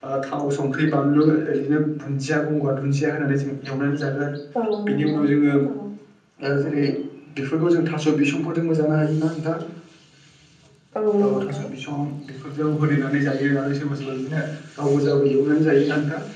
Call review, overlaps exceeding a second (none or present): none